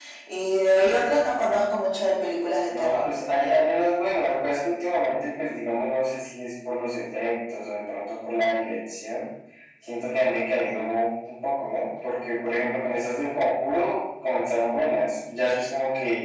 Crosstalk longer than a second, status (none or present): none